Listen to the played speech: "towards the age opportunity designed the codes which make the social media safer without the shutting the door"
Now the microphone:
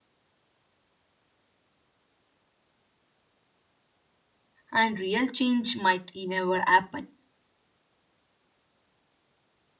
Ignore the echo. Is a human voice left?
Yes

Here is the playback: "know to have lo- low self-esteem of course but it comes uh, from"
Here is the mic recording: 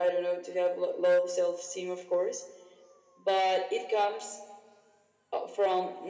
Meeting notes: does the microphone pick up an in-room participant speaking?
No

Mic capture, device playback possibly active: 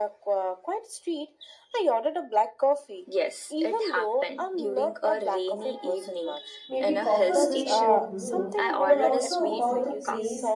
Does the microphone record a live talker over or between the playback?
Yes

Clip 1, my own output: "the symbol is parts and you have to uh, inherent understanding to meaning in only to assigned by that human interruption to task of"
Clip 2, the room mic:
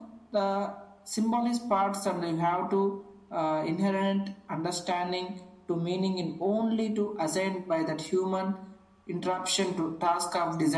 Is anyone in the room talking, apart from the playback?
No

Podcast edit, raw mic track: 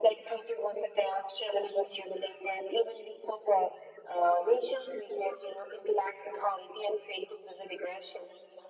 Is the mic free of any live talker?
Yes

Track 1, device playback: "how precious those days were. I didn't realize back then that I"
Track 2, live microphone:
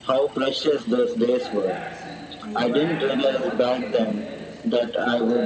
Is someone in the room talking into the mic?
Yes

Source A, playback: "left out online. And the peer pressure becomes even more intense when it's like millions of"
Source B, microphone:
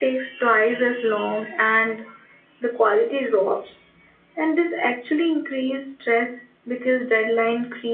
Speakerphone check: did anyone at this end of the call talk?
Yes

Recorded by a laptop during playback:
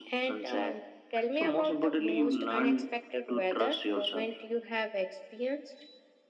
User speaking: No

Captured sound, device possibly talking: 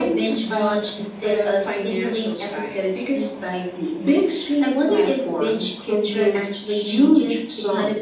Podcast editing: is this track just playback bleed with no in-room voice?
Yes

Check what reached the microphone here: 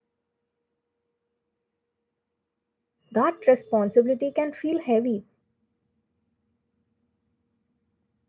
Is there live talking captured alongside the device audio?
Yes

